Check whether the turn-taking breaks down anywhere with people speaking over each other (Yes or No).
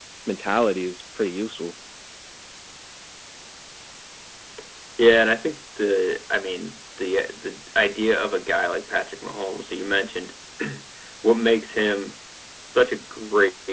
No